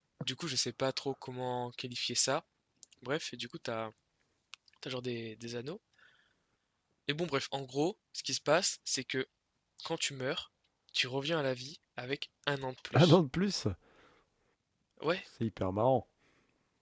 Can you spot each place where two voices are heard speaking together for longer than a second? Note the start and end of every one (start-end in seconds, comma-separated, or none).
none